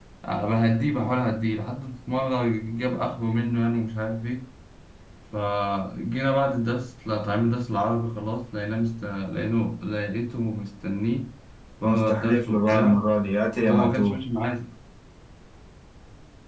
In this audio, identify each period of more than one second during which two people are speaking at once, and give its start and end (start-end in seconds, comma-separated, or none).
11.8-13.0